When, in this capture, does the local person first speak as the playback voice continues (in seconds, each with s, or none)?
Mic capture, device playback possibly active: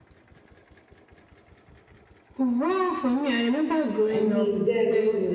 4.1 s